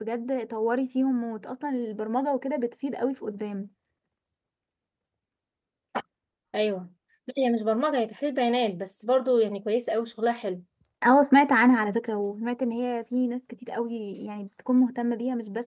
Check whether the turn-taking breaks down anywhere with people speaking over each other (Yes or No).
No